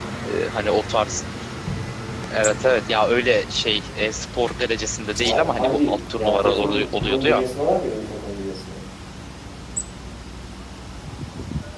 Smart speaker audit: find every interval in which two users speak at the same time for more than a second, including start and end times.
5.2-7.4

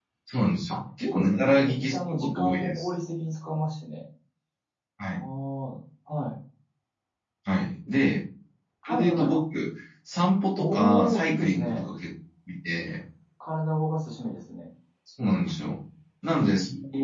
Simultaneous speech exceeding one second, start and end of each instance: 0.7-2.9, 10.6-11.9

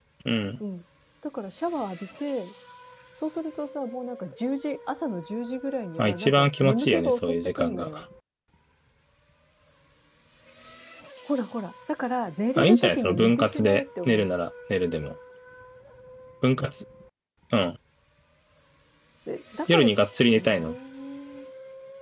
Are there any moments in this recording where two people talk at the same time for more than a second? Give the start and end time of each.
6.0-8.0, 12.6-14.4

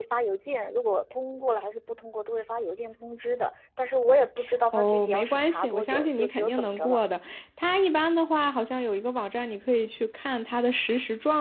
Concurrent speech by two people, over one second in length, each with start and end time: 4.7-7.0

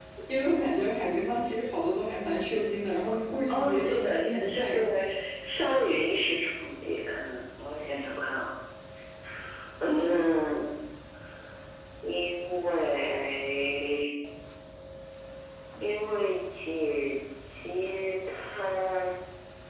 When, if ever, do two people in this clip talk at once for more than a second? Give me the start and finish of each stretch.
3.5-4.8

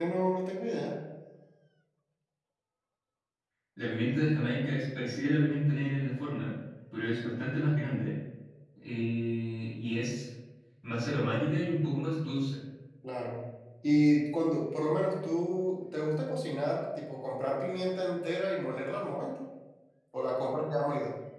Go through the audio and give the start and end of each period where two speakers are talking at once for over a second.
none

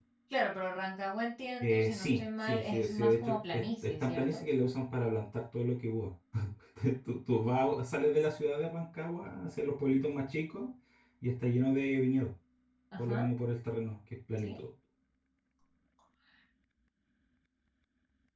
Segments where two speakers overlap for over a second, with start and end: 1.6-4.4

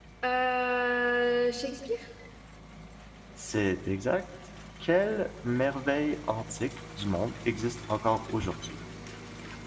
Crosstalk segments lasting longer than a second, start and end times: none

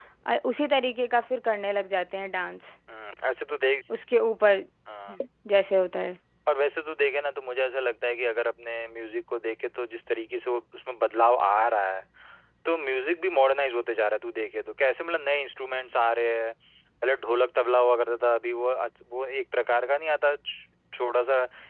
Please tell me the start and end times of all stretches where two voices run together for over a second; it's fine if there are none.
none

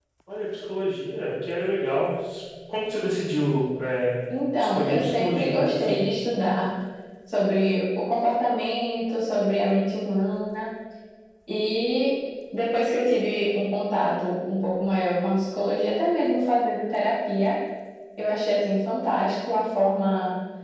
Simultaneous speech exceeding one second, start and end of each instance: 4.6-6.0

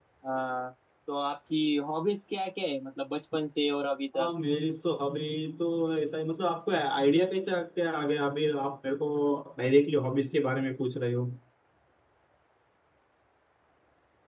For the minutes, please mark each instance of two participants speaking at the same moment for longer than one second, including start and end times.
none

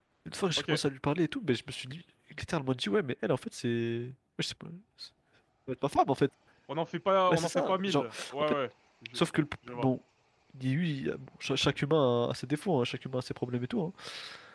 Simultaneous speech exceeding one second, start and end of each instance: 7.3-8.5

